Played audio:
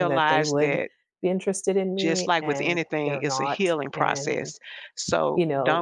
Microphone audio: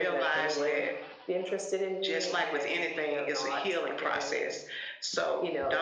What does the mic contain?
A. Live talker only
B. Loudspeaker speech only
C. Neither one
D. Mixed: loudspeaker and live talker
B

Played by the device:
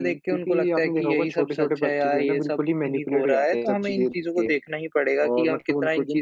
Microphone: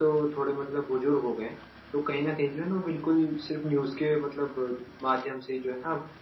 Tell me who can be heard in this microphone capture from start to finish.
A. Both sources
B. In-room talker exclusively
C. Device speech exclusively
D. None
B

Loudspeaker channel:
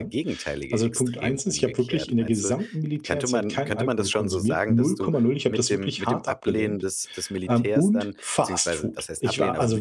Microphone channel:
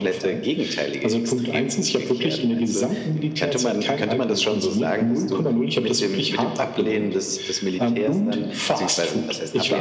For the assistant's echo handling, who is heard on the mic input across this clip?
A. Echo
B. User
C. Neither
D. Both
A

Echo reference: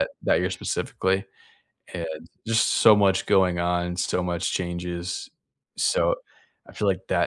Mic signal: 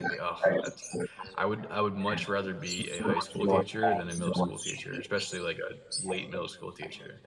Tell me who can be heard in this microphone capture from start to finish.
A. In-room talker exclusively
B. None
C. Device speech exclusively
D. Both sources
D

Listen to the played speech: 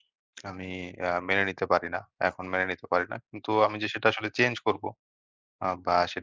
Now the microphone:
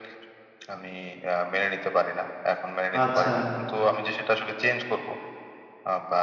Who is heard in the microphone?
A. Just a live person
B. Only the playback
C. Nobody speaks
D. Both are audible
D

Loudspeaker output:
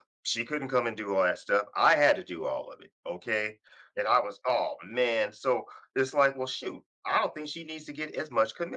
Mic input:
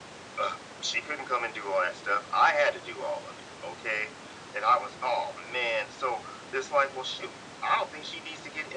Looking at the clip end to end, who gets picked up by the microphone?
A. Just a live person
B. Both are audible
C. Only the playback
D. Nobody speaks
C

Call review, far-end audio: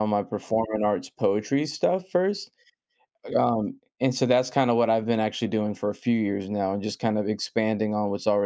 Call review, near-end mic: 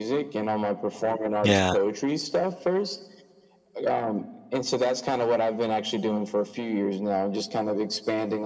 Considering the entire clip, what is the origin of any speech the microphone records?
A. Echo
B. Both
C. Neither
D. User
B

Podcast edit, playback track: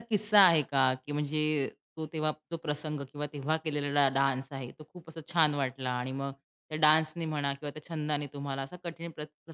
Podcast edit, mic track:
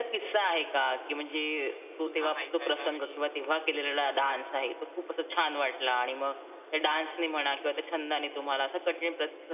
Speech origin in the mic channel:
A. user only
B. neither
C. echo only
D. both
D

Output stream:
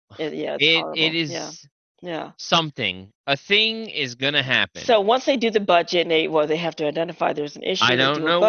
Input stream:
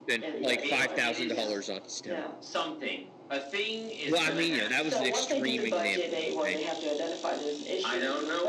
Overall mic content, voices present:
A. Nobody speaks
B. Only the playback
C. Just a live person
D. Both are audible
D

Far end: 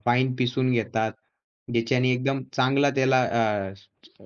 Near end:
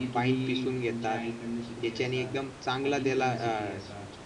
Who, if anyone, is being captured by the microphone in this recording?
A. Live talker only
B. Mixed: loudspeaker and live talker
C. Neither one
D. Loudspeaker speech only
B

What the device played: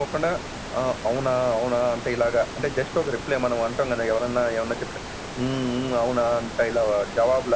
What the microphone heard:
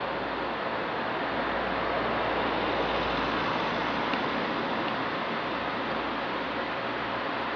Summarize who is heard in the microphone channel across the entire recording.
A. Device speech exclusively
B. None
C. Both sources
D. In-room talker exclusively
B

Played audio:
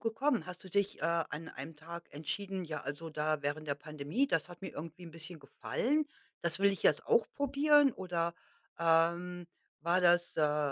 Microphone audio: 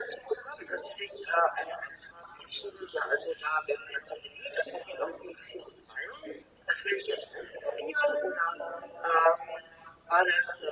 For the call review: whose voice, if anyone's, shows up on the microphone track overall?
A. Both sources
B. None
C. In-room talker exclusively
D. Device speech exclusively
D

